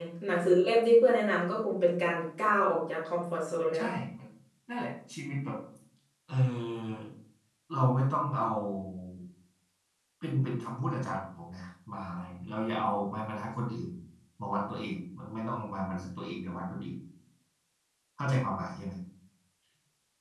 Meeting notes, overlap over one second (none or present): none